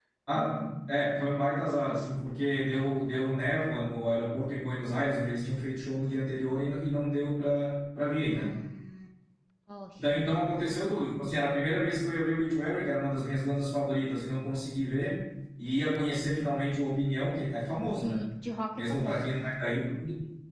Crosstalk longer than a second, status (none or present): none